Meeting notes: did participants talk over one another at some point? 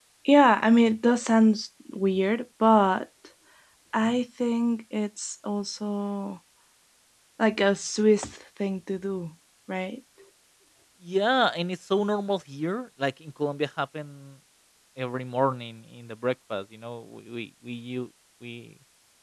No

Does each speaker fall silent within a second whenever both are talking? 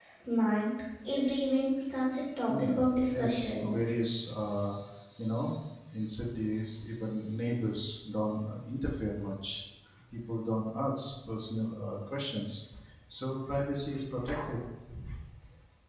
No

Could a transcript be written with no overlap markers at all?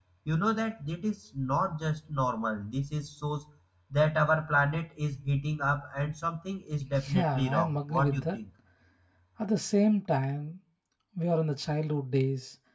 No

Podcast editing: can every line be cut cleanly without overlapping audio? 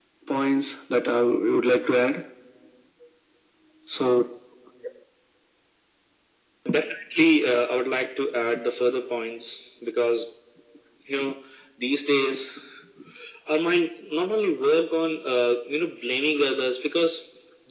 Yes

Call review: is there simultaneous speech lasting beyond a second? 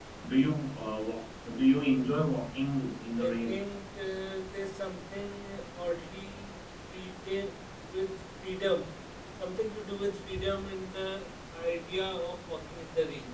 No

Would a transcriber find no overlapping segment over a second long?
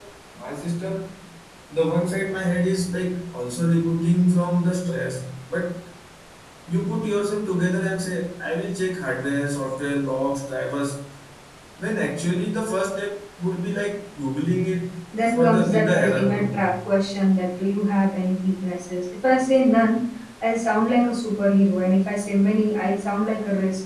No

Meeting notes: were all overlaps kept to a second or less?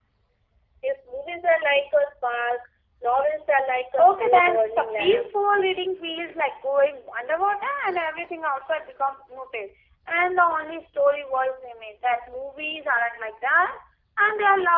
No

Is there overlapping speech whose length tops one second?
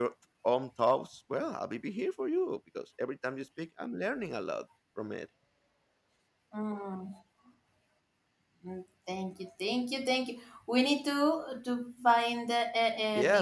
No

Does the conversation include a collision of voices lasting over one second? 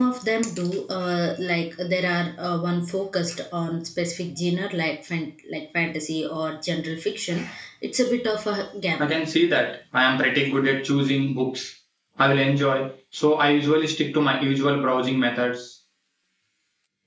No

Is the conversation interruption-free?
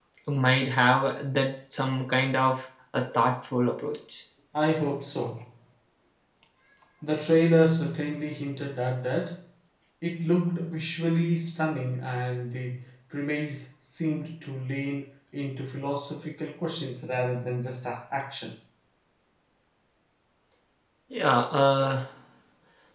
Yes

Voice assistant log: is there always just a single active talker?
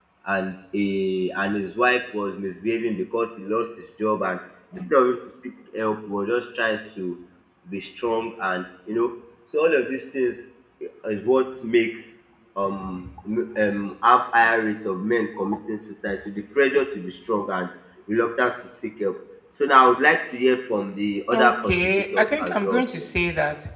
No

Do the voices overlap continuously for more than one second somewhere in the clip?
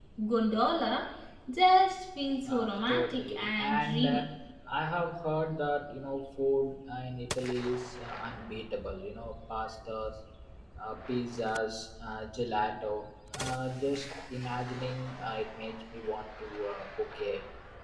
Yes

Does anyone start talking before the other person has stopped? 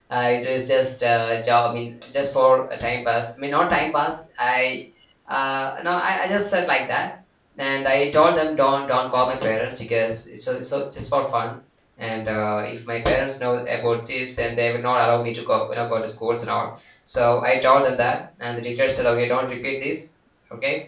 No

